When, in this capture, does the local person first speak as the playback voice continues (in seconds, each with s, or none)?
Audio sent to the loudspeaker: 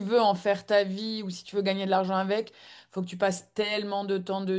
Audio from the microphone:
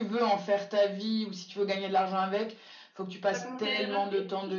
3.3 s